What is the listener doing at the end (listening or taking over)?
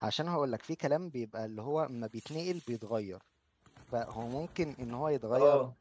listening